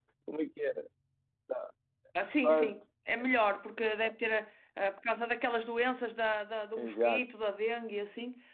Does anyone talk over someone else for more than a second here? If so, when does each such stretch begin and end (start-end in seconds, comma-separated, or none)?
none